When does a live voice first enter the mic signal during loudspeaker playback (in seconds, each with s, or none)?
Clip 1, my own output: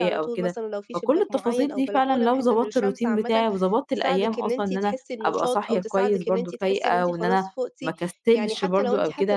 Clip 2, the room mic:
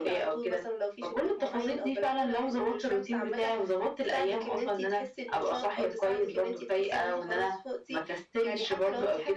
none